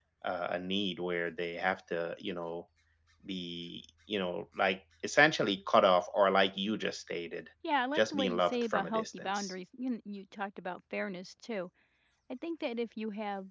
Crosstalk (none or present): present